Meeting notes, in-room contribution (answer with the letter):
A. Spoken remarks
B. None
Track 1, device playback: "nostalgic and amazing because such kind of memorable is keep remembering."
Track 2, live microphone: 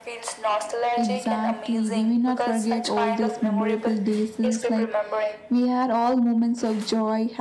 A